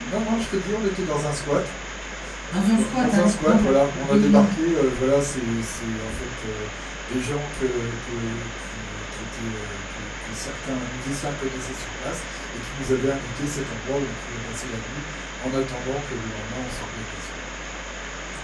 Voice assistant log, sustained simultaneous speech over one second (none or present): present